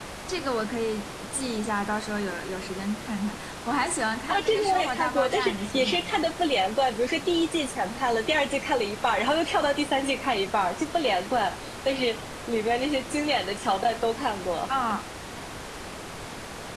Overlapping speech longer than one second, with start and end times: 4.3-6.2

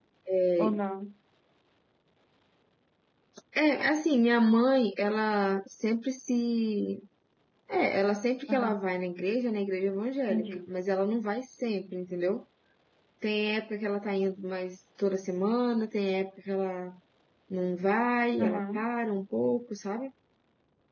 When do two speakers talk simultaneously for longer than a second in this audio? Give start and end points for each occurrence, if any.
none

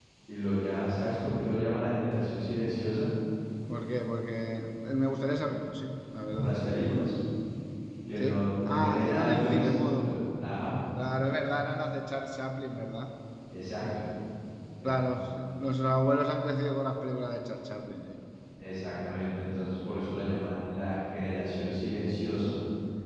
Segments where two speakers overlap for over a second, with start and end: 8.2-10.0

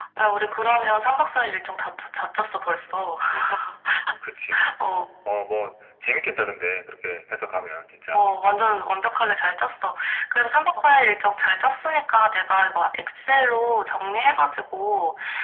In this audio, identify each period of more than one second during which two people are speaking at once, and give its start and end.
none

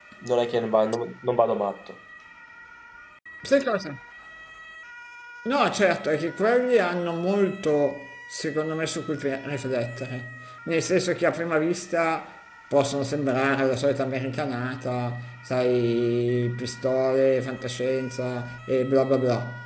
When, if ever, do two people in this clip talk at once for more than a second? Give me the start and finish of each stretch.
none

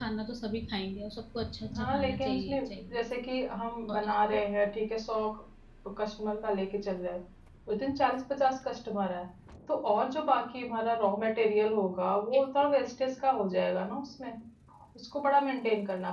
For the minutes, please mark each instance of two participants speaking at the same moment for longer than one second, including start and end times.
1.8-3.0

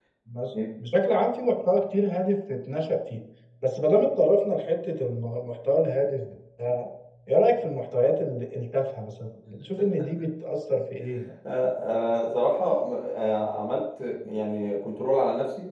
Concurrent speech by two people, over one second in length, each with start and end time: none

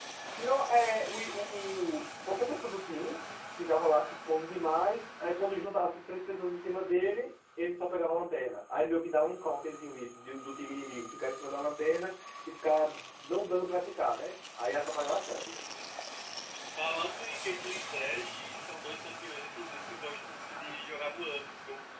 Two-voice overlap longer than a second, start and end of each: none

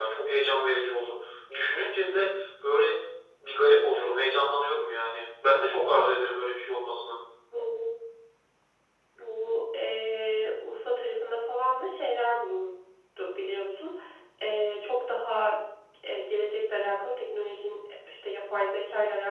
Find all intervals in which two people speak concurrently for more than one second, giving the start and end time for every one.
none

